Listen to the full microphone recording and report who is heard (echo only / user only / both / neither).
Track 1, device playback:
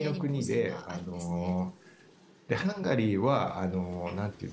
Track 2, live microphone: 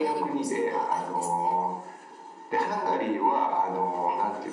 echo only